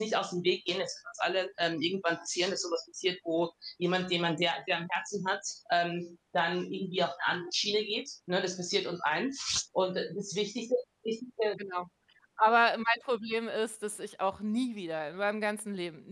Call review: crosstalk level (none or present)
none